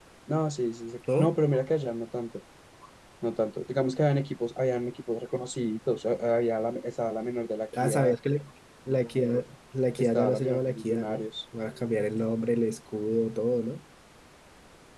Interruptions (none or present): present